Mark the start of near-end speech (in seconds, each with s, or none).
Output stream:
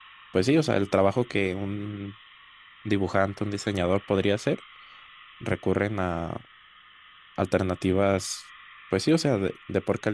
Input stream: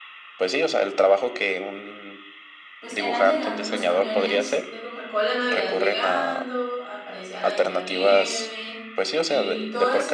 2.8 s